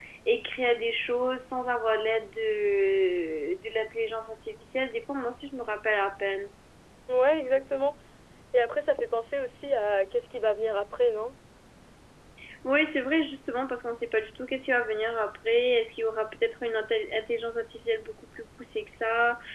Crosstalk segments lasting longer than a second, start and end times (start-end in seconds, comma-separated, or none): none